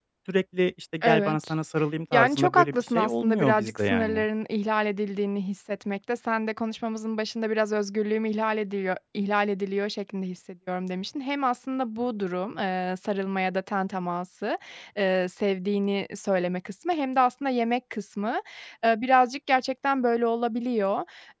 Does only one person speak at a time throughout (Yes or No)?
No